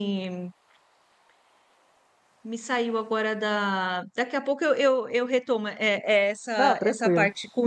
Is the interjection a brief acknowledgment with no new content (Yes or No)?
Yes